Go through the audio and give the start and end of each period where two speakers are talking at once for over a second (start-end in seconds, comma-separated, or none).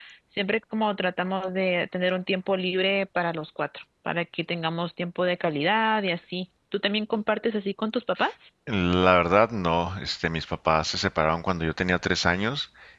none